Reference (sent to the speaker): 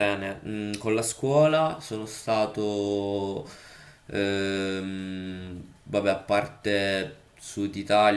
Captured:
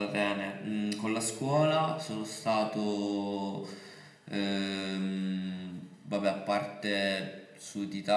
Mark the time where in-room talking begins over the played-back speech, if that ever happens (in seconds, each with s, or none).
none